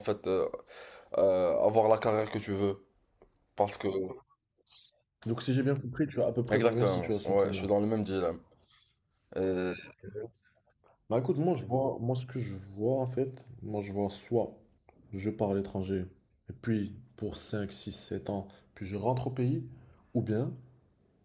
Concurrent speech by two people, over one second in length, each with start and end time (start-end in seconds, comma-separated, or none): 6.5-7.7